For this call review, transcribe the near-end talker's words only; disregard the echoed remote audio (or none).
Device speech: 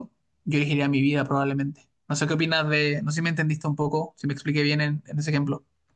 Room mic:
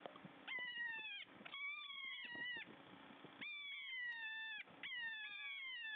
none